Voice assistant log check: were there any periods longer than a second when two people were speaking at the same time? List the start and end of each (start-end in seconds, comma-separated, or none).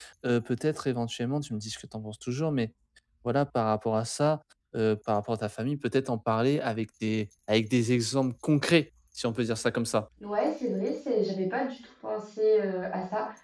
none